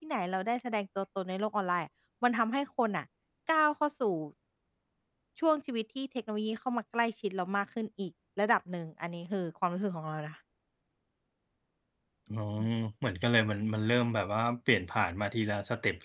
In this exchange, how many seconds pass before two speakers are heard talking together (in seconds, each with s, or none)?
none